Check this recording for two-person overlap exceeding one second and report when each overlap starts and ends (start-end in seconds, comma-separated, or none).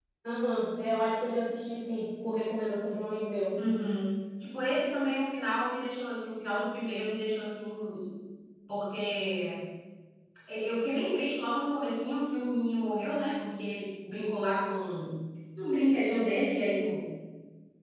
none